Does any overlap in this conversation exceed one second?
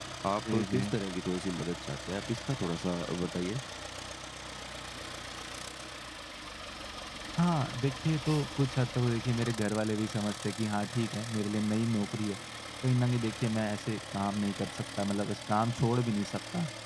No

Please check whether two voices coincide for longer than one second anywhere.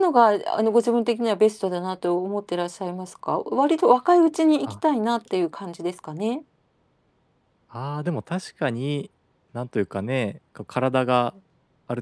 No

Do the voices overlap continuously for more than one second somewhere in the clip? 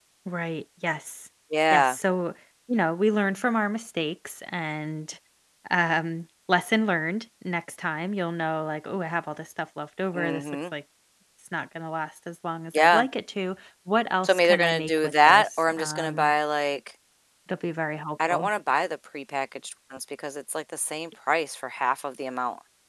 Yes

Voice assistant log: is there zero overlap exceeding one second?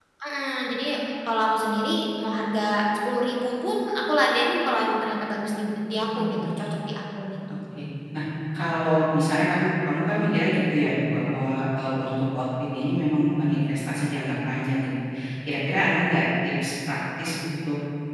Yes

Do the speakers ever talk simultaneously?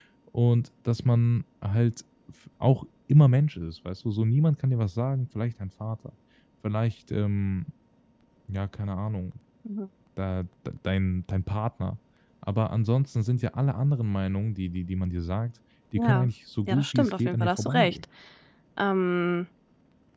Yes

